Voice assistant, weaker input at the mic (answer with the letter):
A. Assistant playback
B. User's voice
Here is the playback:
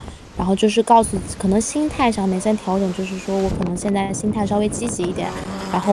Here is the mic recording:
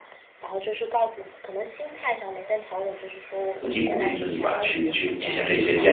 A